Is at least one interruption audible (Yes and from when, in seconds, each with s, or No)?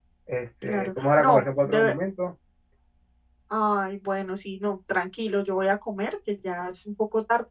Yes, from 0.6 s